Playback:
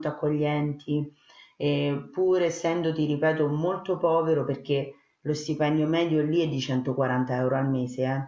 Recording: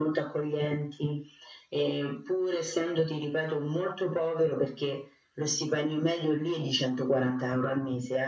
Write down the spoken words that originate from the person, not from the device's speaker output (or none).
none